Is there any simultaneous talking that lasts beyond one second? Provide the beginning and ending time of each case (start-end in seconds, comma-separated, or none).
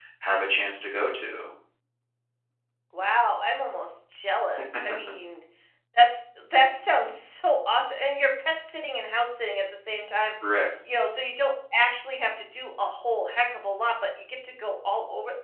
none